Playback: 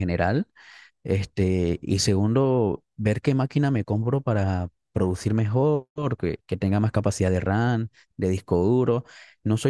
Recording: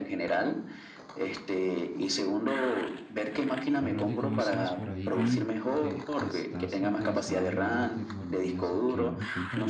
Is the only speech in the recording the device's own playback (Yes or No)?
No